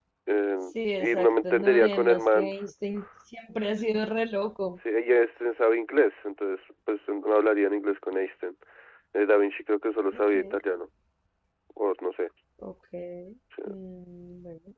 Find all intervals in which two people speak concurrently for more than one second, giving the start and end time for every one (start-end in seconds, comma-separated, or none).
1.0-2.5